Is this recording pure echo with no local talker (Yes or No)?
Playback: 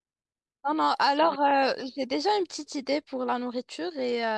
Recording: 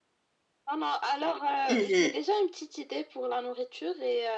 No